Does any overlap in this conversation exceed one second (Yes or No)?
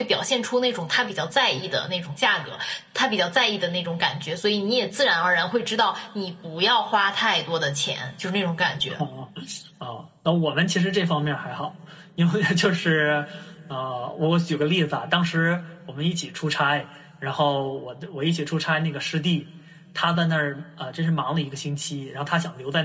No